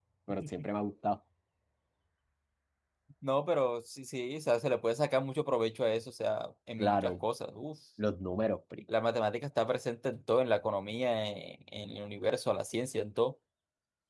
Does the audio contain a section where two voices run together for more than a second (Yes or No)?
No